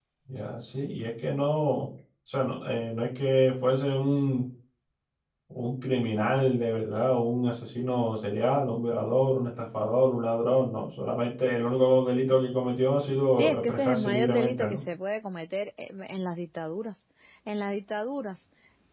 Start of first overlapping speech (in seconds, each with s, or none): 13.4 s